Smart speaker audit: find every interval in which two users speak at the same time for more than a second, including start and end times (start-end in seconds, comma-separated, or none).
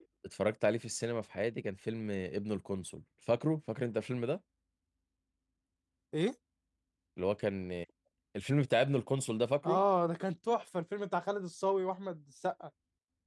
none